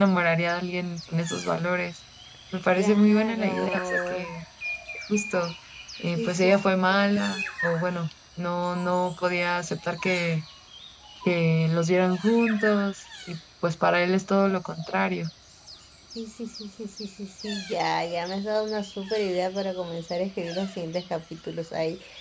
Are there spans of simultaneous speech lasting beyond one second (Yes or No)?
Yes